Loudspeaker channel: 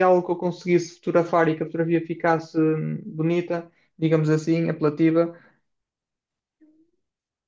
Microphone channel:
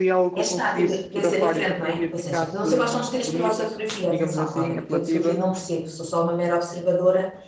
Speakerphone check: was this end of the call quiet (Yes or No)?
No